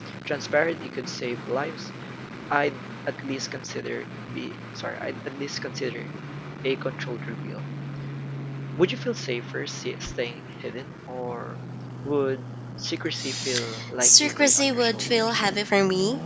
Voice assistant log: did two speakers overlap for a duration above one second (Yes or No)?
Yes